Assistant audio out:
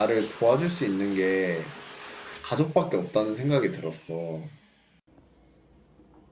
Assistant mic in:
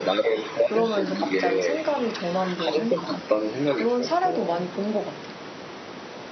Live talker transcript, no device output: 그러면서 갑자기 생각이 전환되는? 그런 사례도 많이 본 것 같아.

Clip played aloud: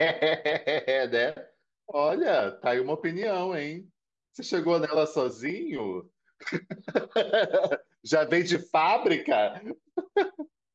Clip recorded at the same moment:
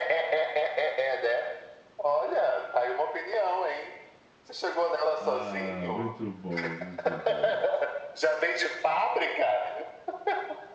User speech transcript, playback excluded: Ah, muito bom, muito bom.

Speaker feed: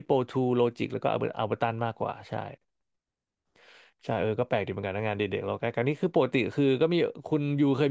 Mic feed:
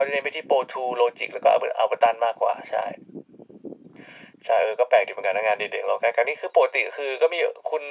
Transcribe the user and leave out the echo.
none

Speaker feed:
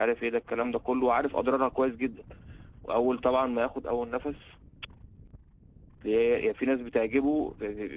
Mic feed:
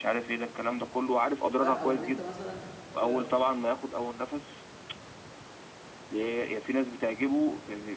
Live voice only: فاهم أو إن أنت مثلا ت...

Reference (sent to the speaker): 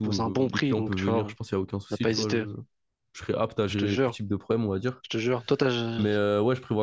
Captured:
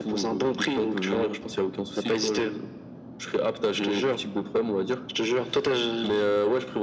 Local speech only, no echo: none

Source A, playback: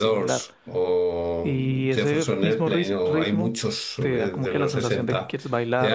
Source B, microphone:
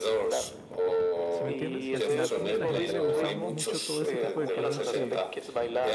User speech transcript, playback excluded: ¿Sí me entiendes? Y al final como que a la gente le gusta mucho todo ese tipo de cosas que,

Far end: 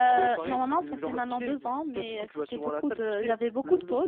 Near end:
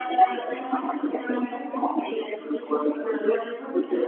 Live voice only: none

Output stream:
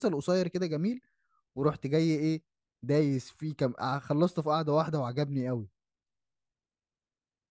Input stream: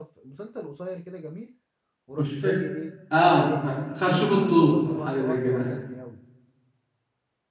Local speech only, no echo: مش فاكر اه خ- خرشوف الطوخ أو حاجة زي كده

